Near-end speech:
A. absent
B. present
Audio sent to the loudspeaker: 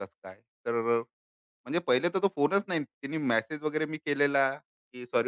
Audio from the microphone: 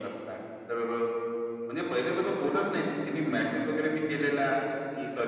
A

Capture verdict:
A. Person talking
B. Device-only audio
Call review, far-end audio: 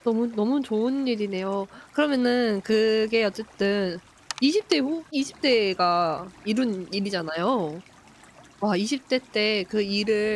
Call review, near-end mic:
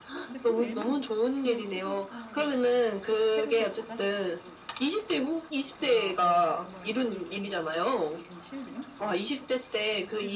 A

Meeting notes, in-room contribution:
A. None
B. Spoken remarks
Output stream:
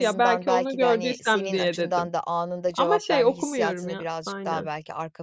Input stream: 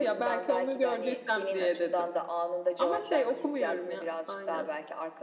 A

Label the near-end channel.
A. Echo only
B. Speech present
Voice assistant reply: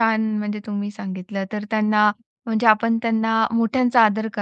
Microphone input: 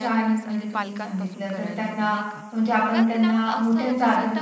B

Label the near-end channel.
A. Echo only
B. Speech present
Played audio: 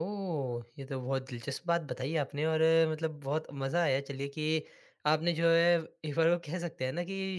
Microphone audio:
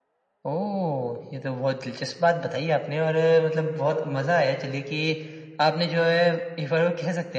A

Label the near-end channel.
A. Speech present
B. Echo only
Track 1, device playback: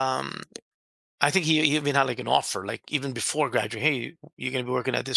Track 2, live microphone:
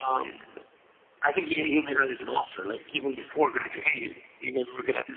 B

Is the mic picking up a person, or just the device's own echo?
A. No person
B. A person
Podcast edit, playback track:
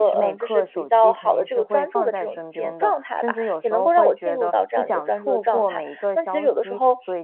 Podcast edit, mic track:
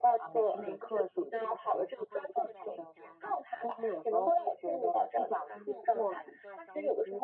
A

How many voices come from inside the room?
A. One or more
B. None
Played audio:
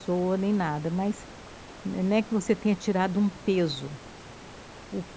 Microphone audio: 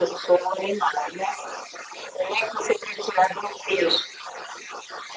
B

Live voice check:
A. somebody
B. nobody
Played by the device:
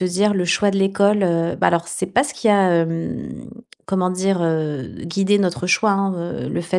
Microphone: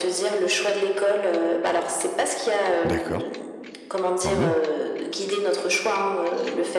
A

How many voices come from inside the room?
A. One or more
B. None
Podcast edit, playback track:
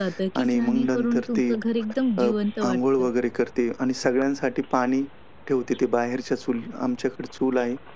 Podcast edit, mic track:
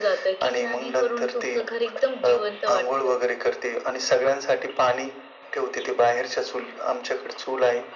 B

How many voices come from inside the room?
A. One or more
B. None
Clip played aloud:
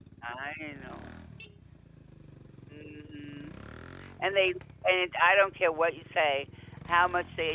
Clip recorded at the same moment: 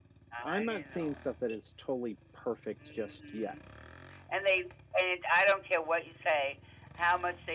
A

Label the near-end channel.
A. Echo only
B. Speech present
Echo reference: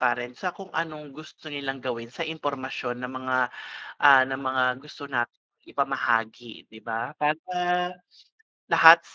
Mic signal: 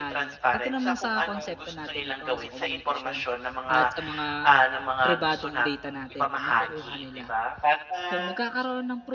B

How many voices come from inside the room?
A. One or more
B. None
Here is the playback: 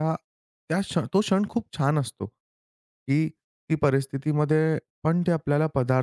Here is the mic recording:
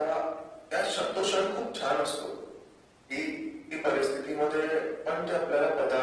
B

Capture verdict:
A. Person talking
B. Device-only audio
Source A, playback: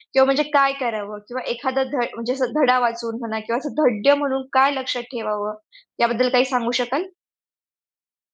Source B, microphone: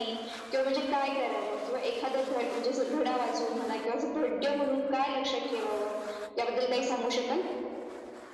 B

